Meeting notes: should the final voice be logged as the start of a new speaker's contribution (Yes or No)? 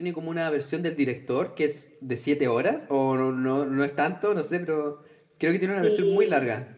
Yes